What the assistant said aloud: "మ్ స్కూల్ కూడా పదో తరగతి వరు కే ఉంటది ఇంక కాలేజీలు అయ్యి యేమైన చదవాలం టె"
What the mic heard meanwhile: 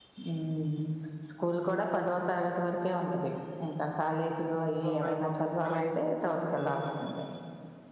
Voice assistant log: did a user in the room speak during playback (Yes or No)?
Yes